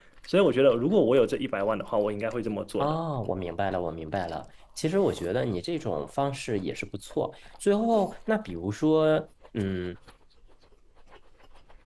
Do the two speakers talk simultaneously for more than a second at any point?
No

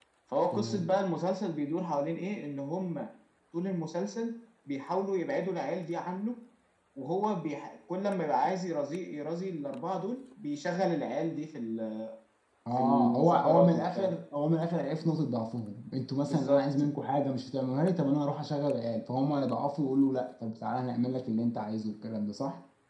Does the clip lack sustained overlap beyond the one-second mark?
No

